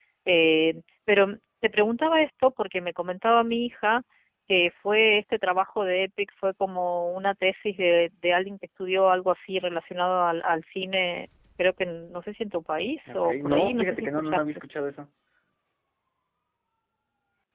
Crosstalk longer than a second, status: present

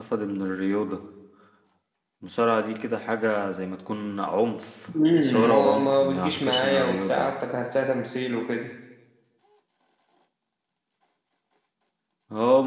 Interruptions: present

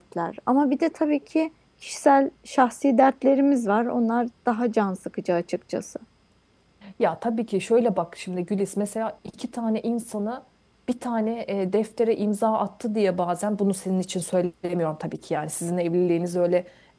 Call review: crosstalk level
none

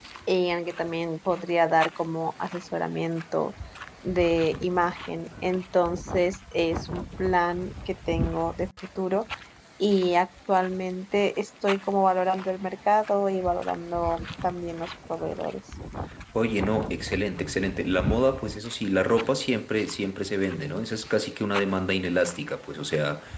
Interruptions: none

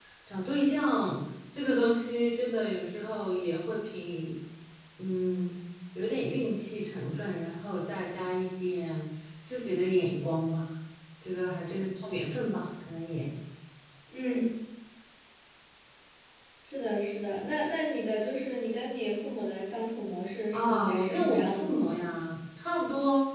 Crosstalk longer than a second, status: present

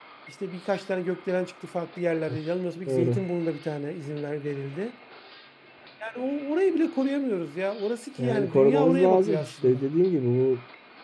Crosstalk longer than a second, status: present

